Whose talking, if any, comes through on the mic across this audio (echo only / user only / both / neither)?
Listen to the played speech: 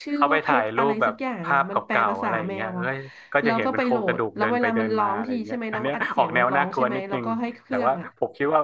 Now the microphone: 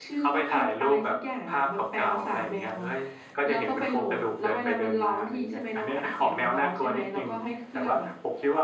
echo only